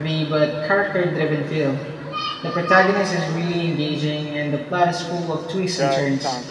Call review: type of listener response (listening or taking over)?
taking over